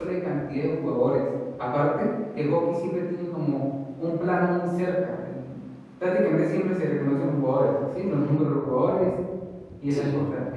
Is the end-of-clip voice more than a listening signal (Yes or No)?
No